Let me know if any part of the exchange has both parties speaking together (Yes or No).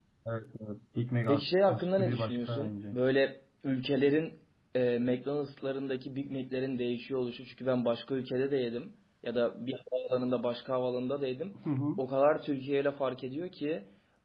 Yes